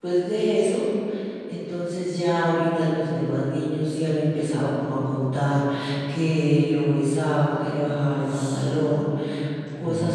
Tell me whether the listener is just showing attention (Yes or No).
Yes